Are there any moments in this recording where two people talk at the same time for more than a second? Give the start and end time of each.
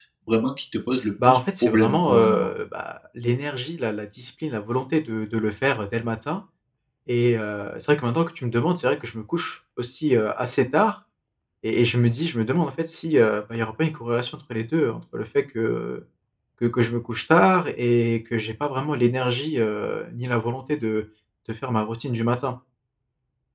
1.3-2.5

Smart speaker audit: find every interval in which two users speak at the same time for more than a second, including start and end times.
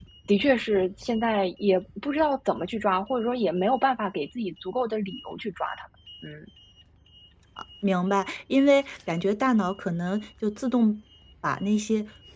none

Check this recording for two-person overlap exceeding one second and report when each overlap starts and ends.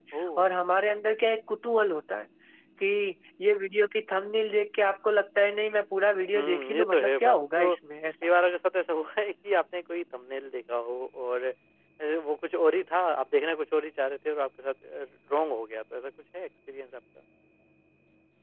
6.3-7.7

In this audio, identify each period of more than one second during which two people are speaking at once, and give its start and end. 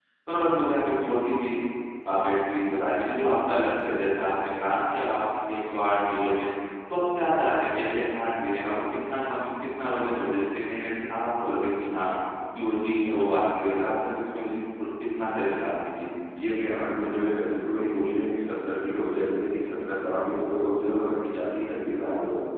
none

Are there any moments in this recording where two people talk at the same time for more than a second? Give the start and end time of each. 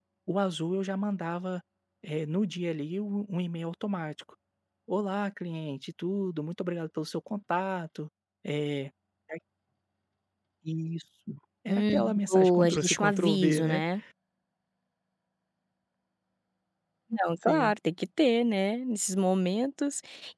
11.7-13.8

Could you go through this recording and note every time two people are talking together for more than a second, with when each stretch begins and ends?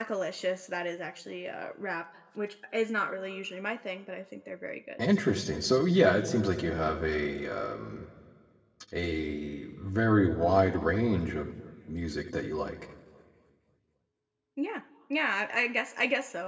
none

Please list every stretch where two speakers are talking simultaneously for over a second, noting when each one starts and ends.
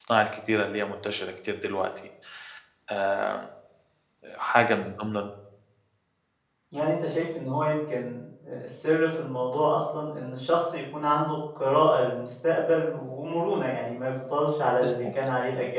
none

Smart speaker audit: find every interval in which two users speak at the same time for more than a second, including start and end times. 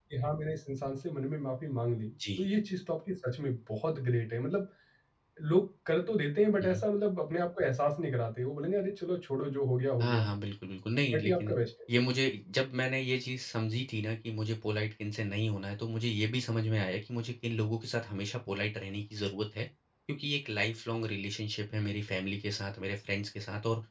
none

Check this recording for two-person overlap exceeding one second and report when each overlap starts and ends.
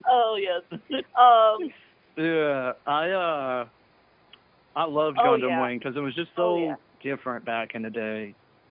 none

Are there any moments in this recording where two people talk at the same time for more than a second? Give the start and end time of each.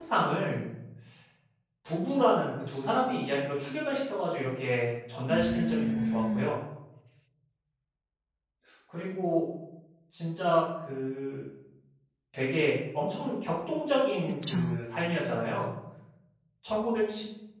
5.3-6.5

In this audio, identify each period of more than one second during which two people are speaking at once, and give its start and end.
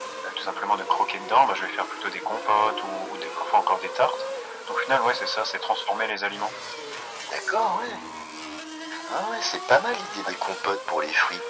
none

